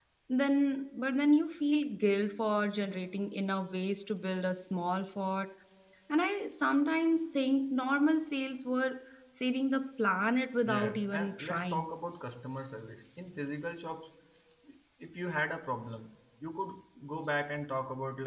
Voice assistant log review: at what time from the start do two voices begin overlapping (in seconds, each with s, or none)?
10.6 s